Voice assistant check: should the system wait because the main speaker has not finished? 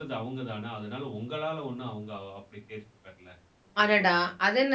No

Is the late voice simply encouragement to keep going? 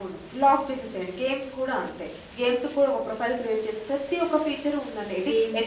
No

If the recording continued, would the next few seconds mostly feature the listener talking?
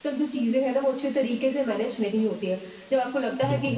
No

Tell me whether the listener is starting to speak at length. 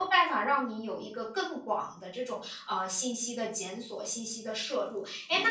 No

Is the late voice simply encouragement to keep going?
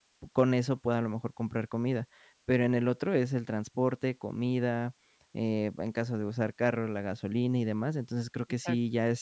Yes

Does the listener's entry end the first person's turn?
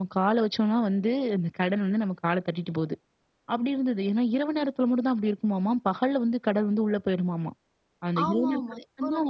Yes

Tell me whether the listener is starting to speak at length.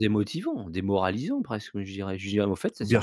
Yes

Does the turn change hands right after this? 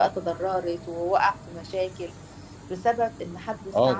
No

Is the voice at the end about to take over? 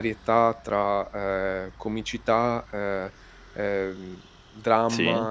No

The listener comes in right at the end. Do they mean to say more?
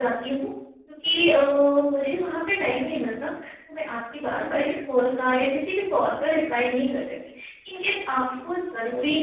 No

